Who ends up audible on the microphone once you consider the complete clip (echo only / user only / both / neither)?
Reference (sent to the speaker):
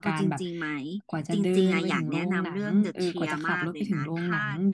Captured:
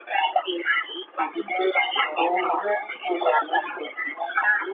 echo only